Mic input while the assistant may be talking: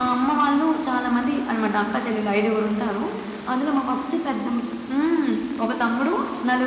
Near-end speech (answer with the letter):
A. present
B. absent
B